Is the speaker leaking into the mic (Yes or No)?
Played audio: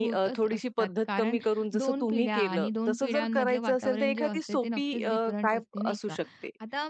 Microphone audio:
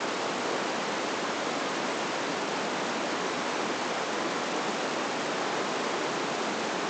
No